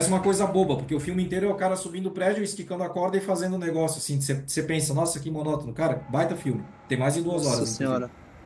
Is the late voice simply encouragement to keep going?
No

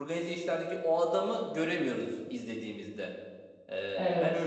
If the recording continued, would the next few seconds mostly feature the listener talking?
Yes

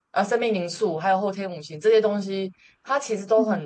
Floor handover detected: No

